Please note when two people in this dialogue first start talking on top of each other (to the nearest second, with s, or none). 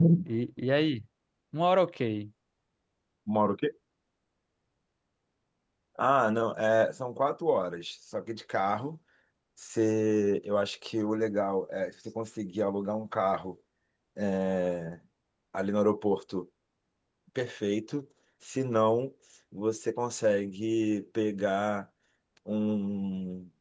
none